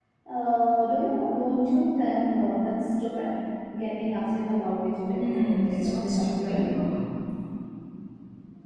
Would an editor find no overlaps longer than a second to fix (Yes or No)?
No